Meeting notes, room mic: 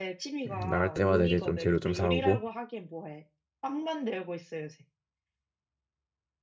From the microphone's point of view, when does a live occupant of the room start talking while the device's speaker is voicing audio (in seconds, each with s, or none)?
0.5 s